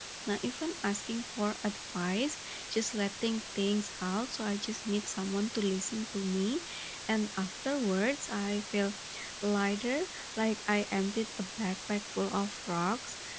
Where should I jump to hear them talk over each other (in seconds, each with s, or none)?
none